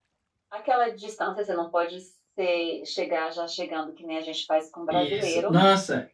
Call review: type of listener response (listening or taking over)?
taking over